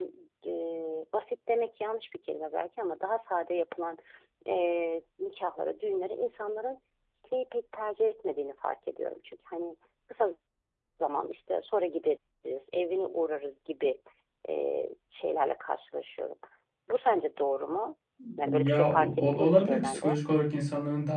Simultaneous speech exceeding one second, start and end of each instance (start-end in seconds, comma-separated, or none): 18.4-20.2